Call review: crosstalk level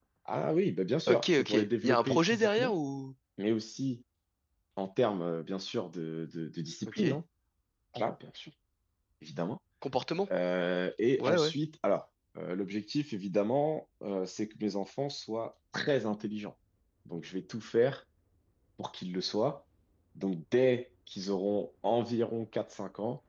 present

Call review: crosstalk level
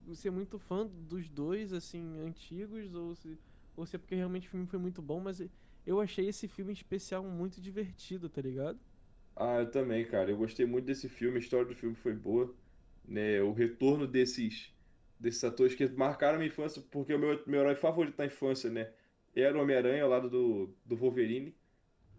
none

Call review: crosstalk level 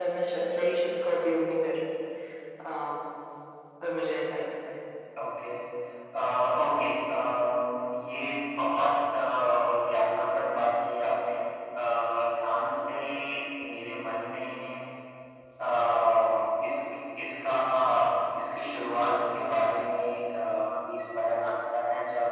none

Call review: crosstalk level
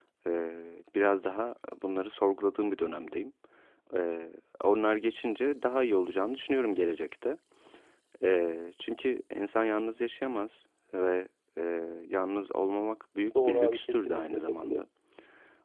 present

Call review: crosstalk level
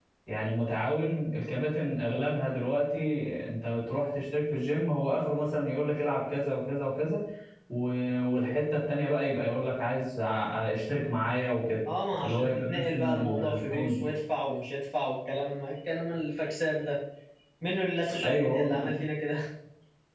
present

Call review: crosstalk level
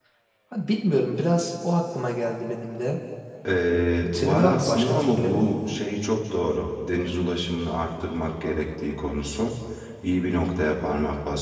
present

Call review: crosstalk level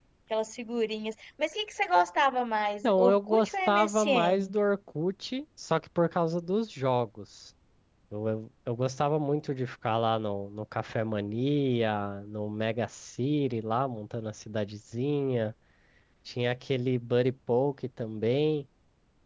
present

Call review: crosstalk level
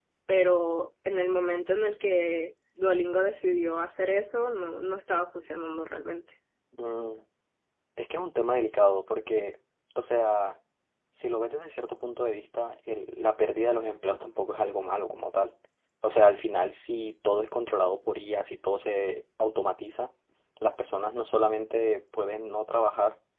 none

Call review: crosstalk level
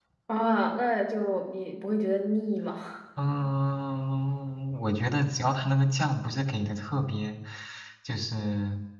none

